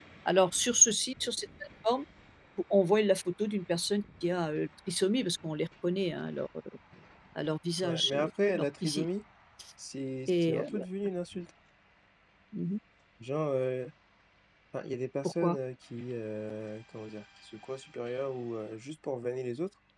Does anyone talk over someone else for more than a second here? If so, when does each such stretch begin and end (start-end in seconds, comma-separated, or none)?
7.8-9.1